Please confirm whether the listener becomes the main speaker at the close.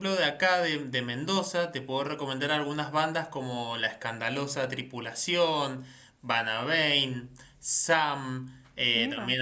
No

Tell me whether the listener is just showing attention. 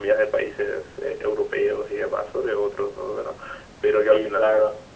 Yes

